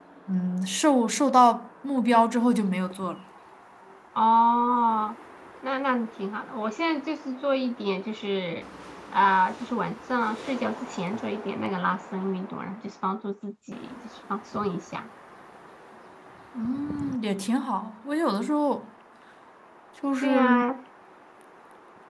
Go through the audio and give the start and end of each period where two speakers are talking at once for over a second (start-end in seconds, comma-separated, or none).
none